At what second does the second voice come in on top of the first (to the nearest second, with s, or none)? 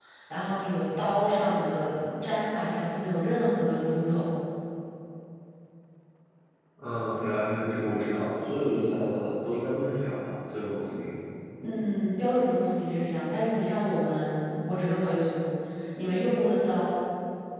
none